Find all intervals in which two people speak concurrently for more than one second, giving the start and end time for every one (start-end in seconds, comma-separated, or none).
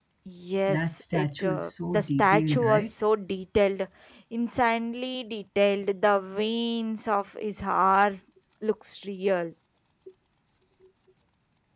0.7-2.9